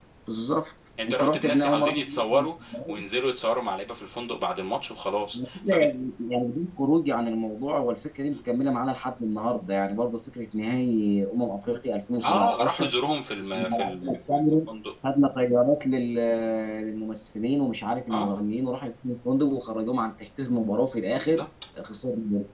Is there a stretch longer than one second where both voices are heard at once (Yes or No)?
Yes